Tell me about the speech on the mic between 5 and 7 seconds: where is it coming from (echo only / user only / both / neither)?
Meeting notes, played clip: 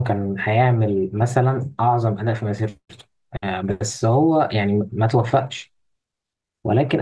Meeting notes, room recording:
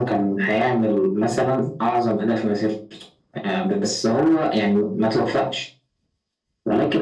echo only